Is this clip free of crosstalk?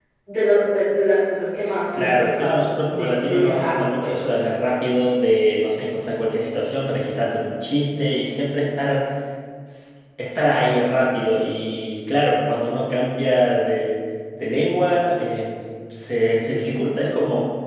No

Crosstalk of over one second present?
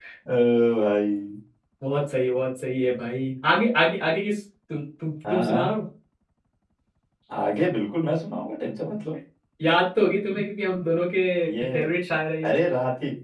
No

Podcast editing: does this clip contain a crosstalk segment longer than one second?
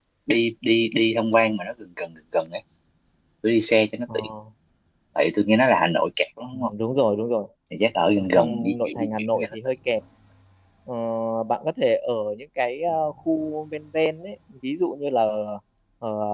Yes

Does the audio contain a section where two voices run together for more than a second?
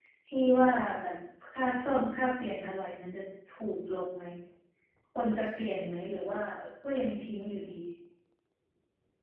No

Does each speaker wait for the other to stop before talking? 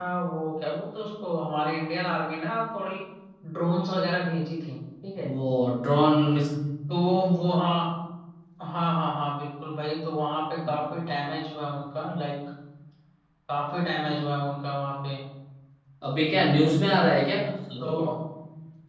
Yes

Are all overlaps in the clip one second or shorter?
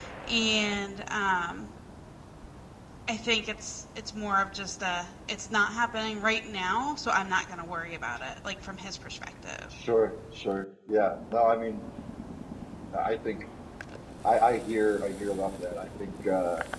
Yes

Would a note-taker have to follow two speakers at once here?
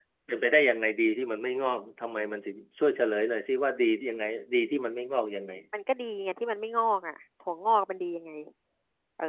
No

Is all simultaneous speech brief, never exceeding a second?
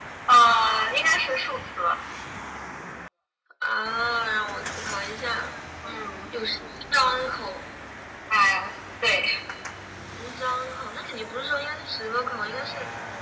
Yes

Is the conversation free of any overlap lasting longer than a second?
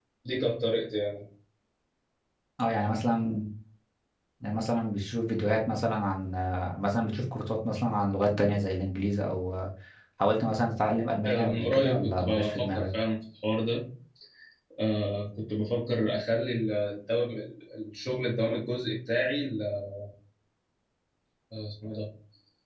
No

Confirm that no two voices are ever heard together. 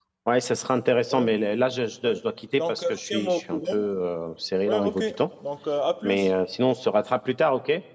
No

